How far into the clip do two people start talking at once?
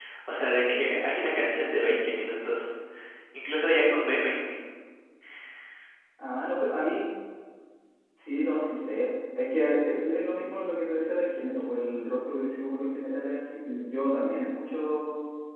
none

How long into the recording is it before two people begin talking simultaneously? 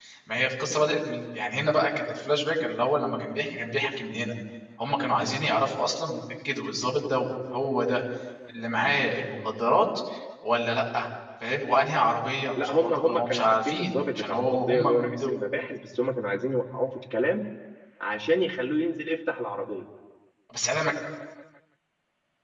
12.6 s

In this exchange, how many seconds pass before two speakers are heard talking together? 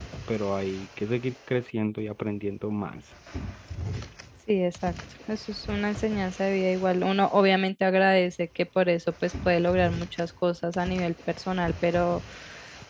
none

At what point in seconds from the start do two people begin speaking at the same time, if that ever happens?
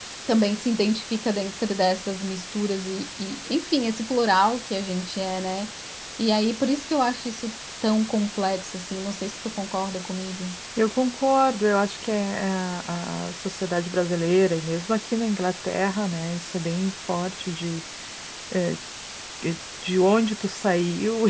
none

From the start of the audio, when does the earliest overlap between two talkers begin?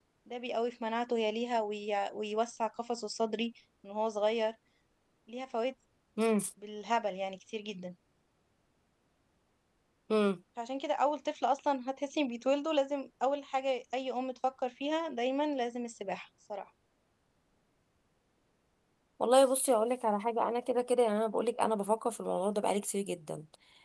none

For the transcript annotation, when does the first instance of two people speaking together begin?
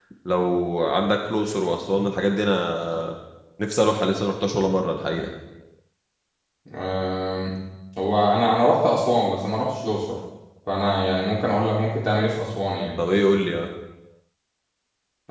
none

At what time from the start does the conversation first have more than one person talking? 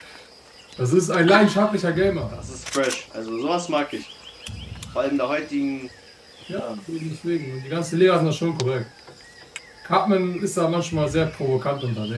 none

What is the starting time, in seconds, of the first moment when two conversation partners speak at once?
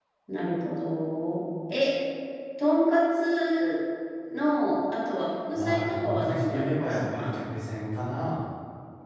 5.5 s

